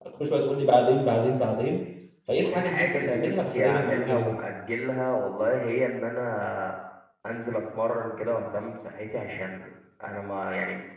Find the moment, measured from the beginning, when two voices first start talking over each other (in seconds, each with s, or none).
2.5 s